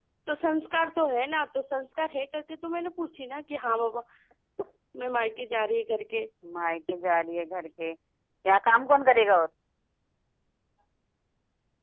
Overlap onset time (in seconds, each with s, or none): none